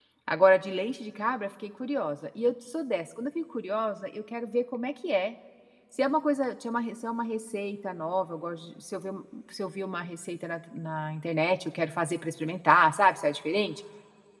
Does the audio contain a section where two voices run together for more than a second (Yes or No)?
No